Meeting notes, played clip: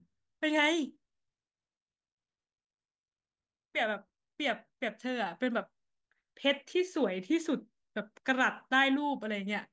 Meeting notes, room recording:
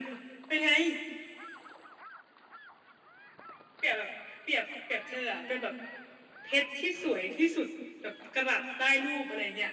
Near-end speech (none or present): none